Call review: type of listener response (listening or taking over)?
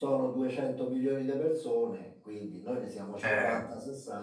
listening